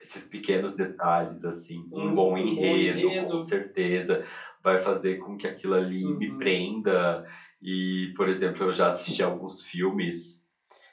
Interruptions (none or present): present